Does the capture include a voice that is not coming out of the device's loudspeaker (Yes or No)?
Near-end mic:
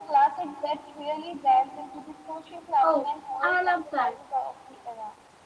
Yes